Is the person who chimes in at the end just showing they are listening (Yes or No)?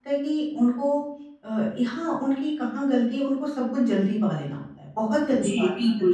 No